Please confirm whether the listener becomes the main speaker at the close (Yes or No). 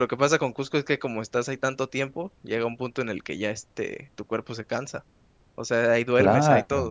Yes